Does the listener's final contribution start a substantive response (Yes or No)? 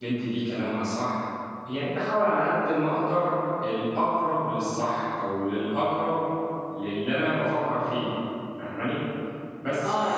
Yes